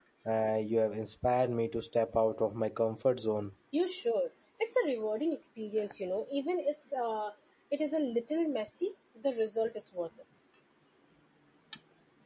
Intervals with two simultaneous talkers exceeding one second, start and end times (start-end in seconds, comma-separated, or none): none